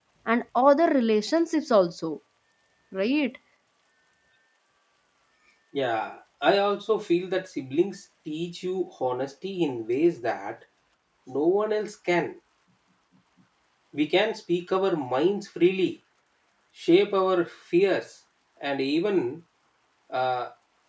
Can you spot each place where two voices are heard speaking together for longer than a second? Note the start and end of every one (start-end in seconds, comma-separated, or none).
none